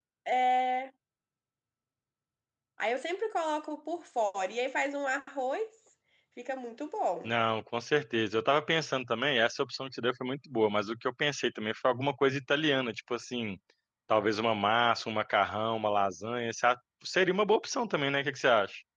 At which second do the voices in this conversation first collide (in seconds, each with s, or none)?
none